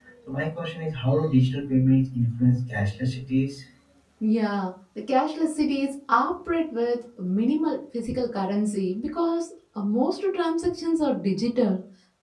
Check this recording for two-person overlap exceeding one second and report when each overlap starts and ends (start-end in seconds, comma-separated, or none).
none